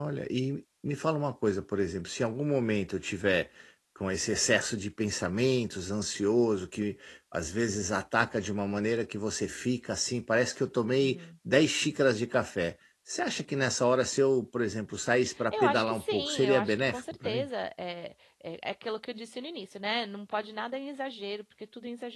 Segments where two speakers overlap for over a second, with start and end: 15.5-17.5

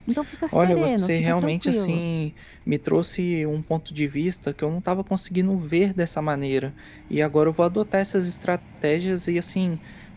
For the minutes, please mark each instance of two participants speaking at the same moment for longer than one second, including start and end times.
0.5-2.0

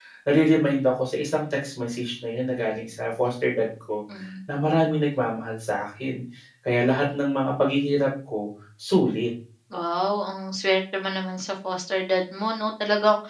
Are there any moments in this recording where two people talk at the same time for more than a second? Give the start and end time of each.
none

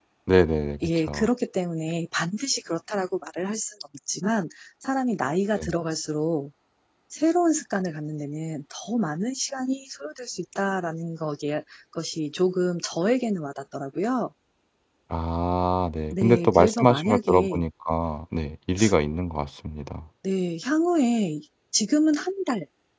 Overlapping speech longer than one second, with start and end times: 16.1-17.6

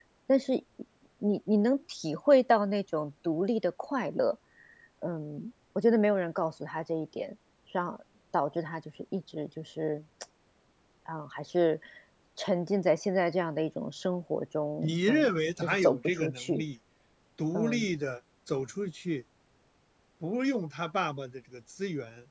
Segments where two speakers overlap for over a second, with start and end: 14.8-16.6

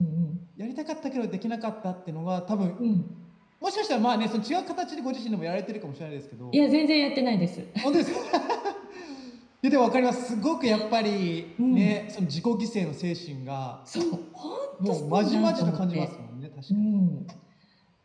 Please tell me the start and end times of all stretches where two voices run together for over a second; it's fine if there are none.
14.8-16.1

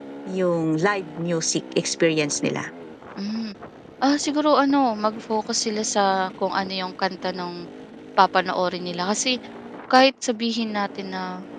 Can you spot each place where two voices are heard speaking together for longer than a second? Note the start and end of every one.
none

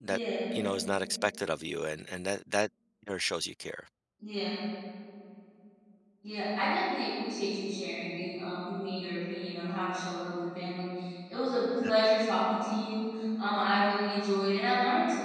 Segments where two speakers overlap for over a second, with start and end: none

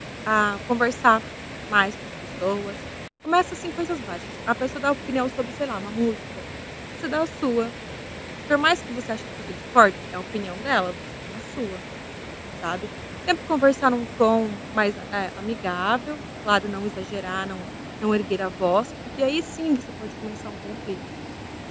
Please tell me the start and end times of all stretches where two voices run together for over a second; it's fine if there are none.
none

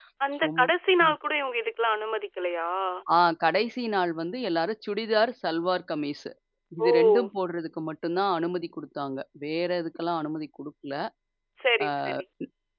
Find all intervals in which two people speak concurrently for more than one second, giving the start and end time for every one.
none

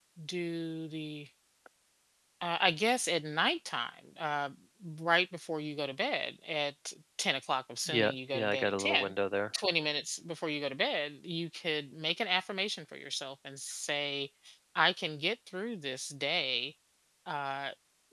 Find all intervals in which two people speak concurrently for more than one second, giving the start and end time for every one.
7.9-9.1

